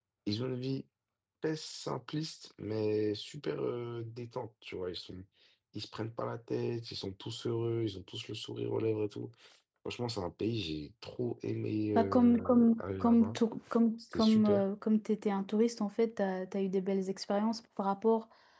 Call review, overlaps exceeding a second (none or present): present